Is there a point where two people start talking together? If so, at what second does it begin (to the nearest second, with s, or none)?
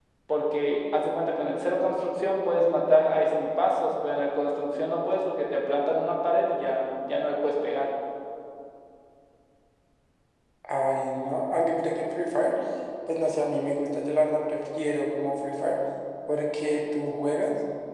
none